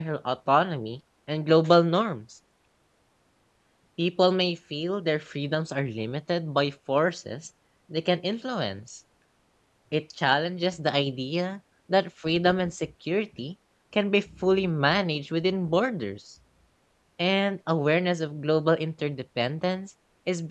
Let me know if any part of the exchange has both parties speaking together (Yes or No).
No